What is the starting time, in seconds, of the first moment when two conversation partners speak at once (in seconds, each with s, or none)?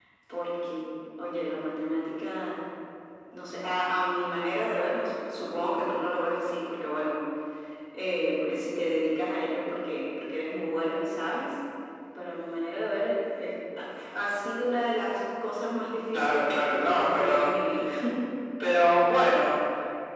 16.1 s